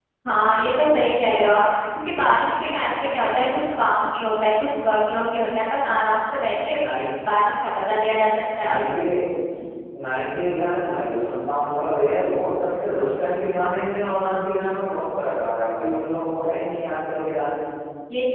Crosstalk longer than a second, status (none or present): none